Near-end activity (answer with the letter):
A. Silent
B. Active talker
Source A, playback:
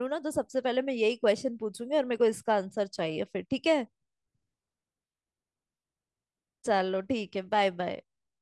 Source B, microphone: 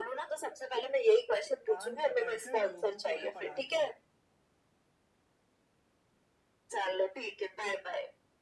B